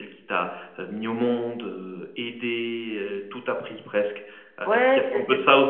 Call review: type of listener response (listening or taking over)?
taking over